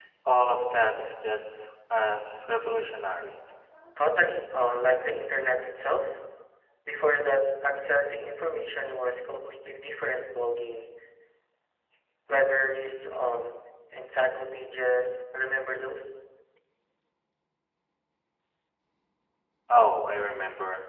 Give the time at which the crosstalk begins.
none

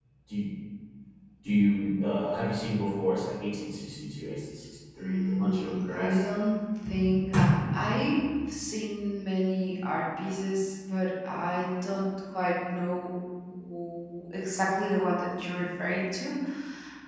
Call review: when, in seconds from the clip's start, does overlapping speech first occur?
5.0 s

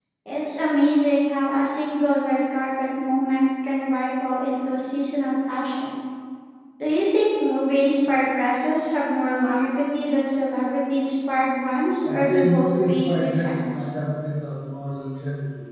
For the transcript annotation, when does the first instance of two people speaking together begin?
12.0 s

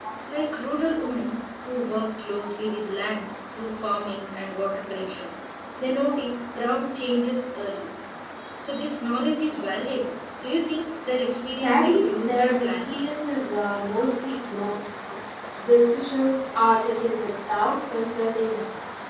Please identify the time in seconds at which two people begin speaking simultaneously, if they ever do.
11.5 s

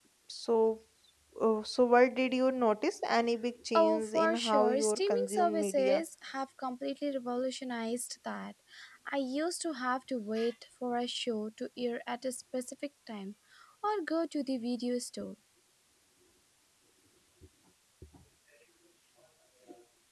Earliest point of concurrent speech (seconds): 3.7 s

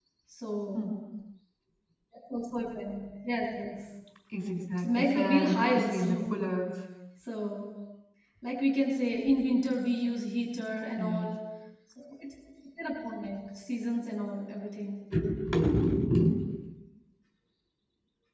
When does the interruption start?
4.8 s

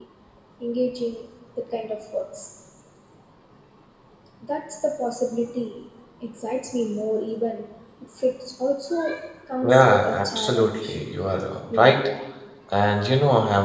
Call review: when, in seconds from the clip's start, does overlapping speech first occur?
9.7 s

